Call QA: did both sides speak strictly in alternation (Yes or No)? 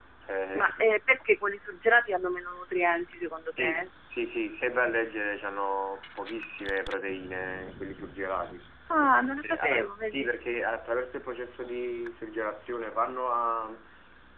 No